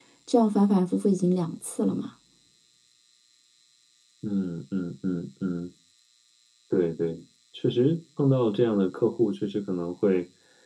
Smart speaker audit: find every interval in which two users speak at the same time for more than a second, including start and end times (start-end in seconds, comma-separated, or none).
none